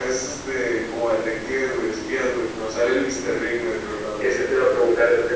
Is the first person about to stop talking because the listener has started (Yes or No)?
Yes